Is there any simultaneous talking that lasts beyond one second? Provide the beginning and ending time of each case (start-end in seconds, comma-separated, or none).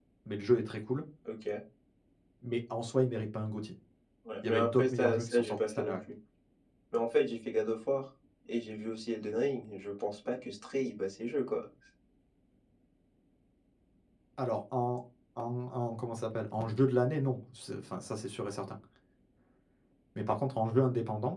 4.4-6.0